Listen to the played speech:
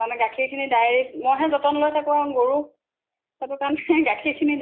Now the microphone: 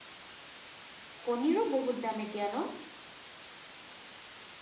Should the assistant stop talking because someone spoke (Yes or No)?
Yes